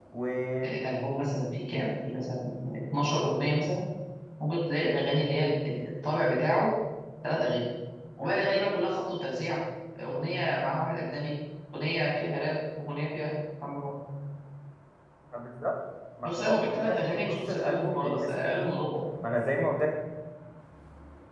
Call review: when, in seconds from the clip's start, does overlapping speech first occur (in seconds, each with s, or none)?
16.2 s